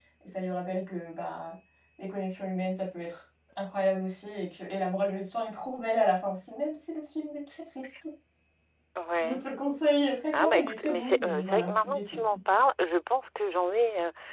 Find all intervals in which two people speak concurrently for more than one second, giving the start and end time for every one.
10.3-12.0

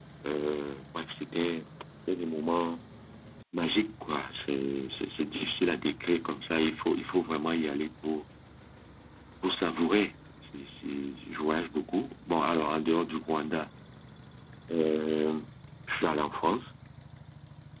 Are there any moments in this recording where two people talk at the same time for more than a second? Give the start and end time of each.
none

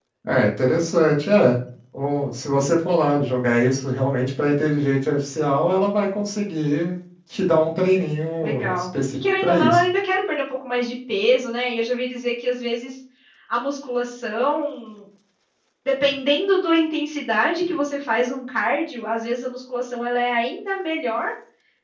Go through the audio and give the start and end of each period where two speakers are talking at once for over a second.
8.4-9.8

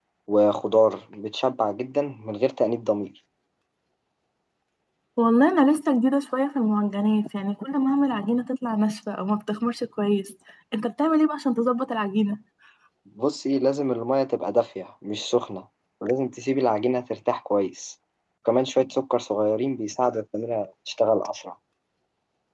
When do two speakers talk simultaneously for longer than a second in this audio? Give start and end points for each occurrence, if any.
none

